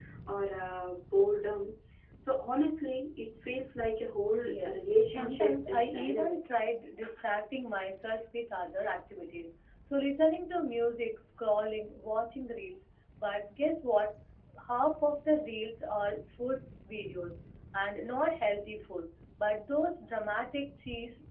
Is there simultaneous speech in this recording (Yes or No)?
Yes